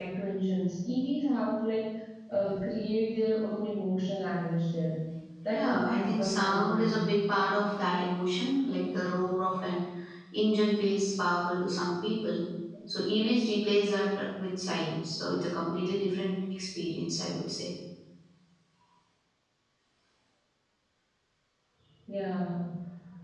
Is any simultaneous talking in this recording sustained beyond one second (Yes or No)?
Yes